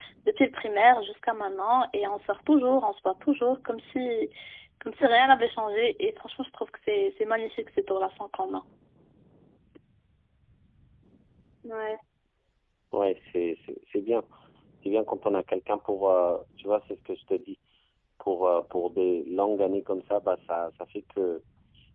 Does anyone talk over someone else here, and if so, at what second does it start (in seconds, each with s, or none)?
none